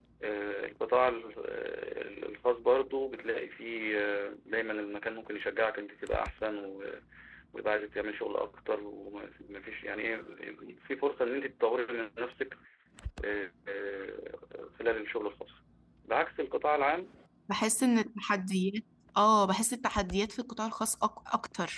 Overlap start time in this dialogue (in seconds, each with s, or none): none